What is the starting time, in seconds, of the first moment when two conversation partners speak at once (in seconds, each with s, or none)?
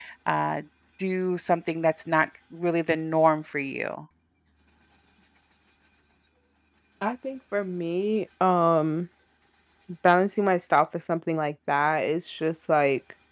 none